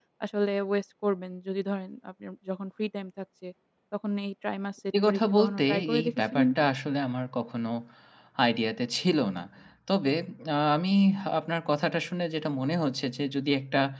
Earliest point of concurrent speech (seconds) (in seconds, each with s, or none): 4.9 s